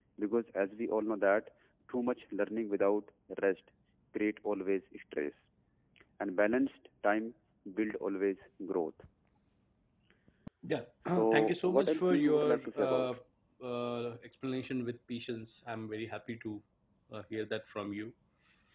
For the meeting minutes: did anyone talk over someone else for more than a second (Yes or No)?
Yes